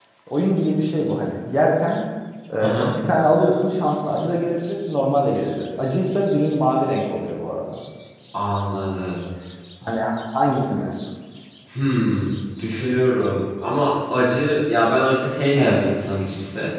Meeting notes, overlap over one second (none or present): none